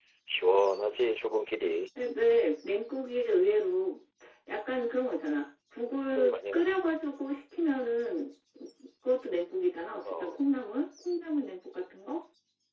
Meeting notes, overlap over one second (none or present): none